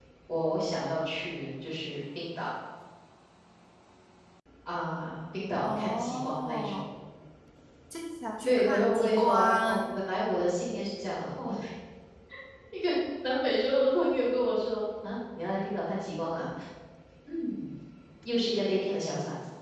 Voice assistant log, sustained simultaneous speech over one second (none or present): present